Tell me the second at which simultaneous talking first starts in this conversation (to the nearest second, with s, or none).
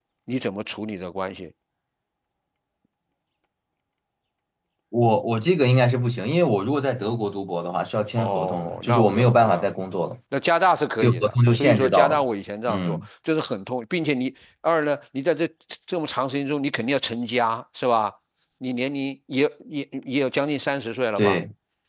8 s